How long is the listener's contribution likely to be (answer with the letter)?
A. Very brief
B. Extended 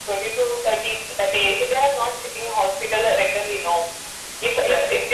A